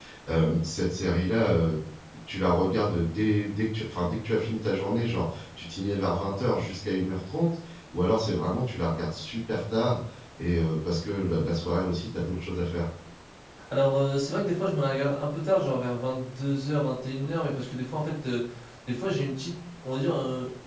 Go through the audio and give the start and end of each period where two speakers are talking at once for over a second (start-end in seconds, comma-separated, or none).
none